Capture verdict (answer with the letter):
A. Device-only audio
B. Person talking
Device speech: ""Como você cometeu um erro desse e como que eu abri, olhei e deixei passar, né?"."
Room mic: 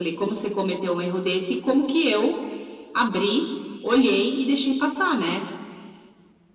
A